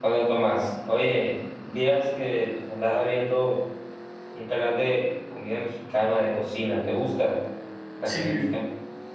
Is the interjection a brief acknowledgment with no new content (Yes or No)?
No